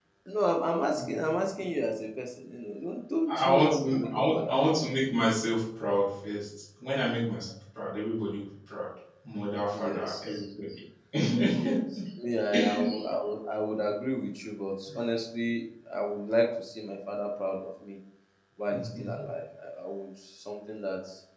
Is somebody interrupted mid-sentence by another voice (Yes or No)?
Yes